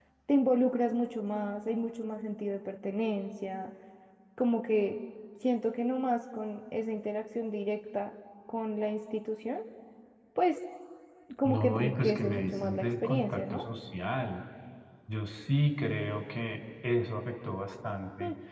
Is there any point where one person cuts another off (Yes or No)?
Yes